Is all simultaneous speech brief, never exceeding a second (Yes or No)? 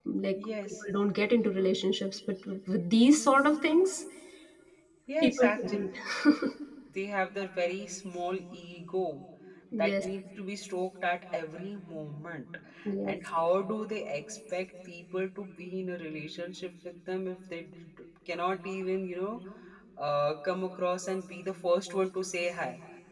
Yes